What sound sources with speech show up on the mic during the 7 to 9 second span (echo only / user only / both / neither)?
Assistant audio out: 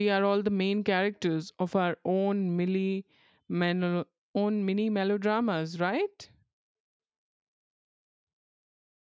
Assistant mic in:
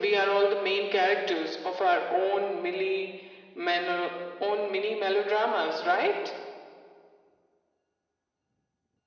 neither